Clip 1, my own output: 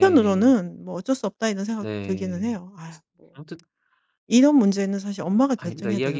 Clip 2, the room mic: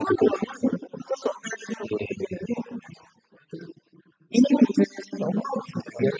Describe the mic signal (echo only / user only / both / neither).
echo only